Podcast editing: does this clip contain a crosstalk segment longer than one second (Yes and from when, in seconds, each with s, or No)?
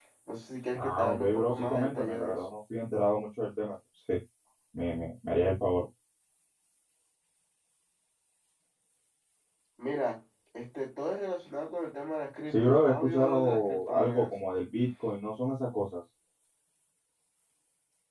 Yes, from 0.7 s